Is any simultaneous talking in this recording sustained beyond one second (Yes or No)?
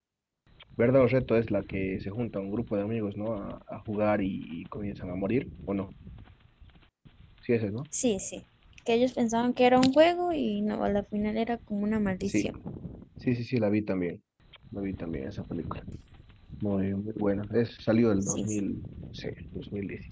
No